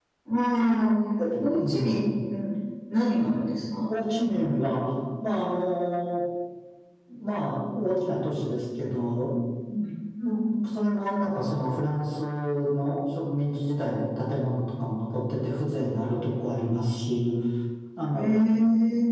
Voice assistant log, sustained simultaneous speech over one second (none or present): none